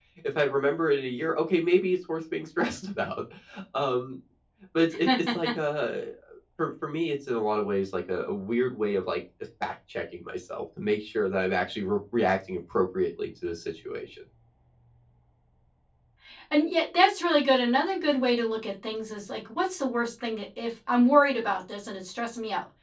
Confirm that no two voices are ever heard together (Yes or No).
Yes